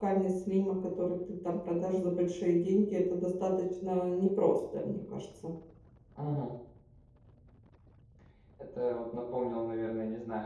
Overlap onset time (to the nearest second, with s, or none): none